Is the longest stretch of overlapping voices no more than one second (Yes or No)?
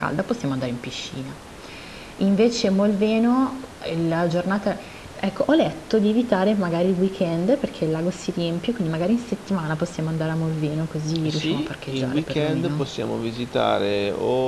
No